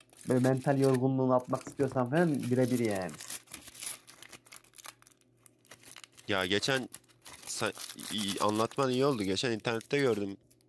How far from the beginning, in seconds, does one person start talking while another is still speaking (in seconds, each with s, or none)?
none